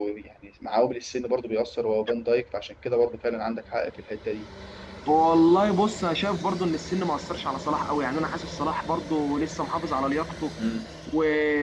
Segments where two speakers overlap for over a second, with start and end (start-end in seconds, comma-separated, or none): none